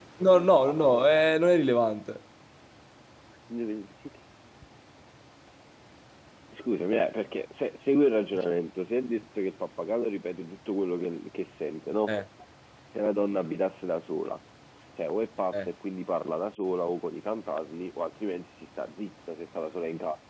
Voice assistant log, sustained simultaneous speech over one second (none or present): none